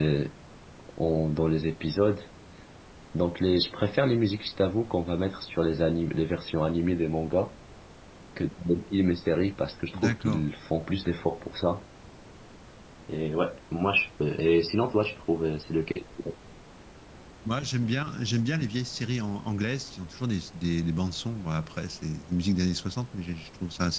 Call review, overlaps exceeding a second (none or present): none